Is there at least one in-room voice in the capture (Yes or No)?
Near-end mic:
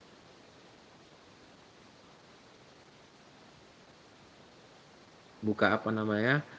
Yes